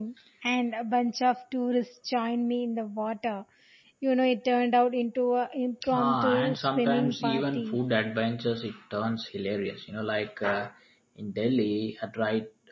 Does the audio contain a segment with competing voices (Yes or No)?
Yes